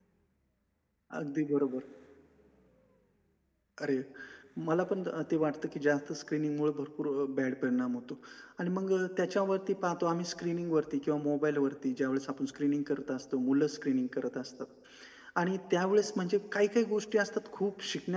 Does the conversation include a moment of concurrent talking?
No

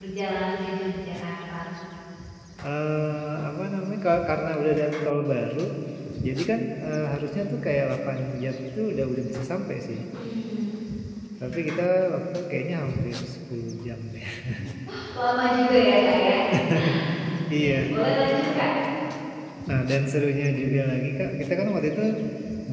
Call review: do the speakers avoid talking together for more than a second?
Yes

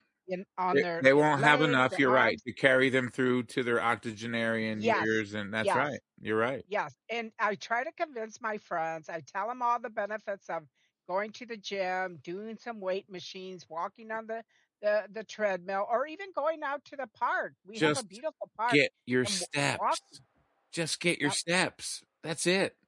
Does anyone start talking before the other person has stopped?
Yes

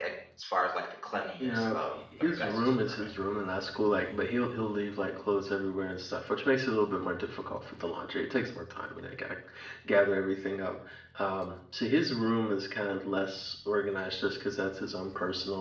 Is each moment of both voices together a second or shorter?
No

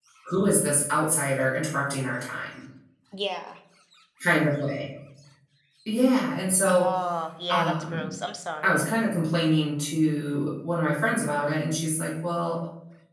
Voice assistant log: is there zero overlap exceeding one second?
Yes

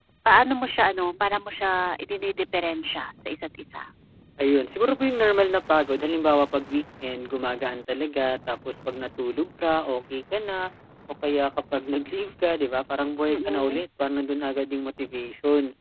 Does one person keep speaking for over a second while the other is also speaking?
No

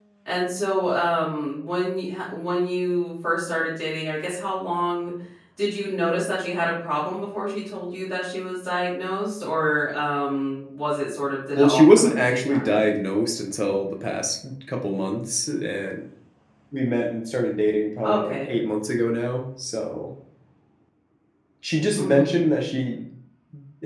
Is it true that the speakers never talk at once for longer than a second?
No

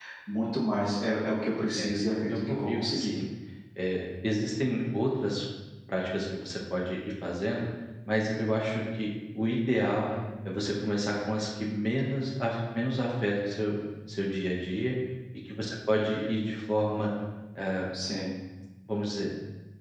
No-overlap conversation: No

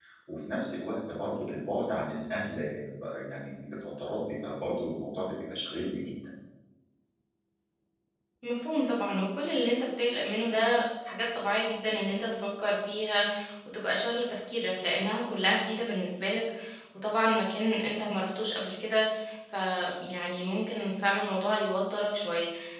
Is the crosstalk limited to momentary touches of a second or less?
Yes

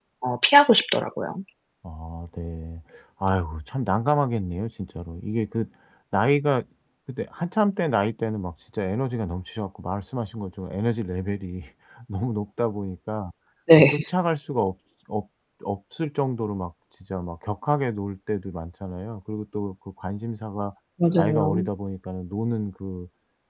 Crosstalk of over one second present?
No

